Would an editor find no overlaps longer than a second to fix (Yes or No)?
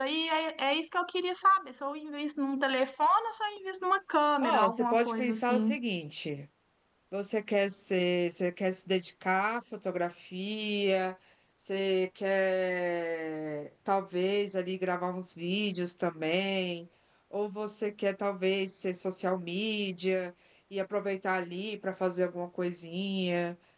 No